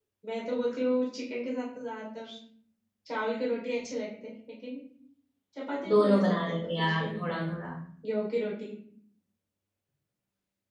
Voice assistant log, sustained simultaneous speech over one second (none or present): present